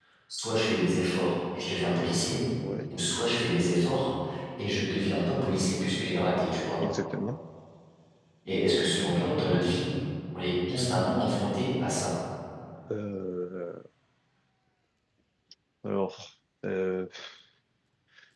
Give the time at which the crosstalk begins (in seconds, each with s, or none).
none